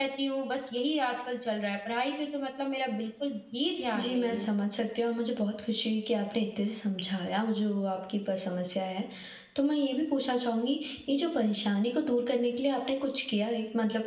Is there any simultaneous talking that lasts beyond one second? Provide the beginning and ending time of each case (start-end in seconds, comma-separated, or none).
none